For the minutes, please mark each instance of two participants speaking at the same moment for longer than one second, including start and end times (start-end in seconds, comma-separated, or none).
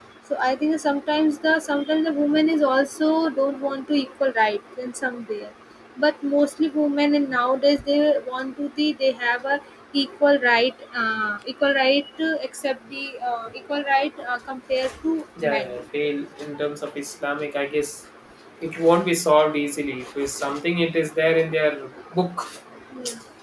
none